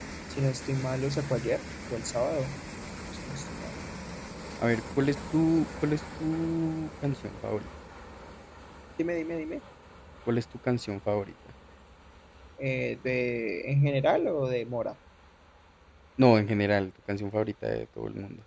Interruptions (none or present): none